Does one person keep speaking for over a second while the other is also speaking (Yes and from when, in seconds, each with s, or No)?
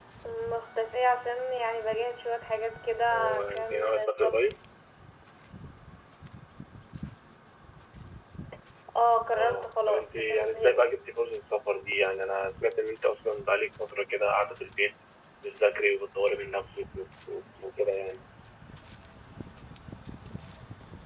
Yes, from 3.1 s